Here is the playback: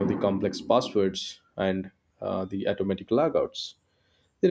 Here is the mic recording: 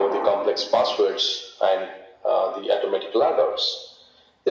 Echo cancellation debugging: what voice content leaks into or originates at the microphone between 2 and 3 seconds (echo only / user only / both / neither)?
echo only